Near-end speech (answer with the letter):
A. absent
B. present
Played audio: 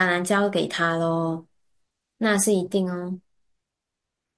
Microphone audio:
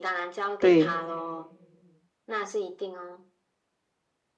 B